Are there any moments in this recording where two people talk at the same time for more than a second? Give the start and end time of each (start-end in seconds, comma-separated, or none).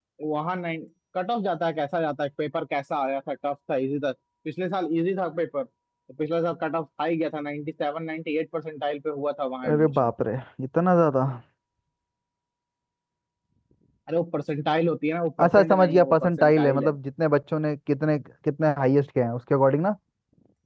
15.4-17.0